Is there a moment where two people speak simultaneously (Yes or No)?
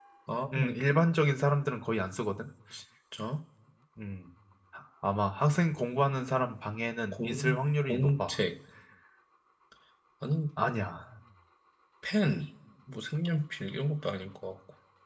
Yes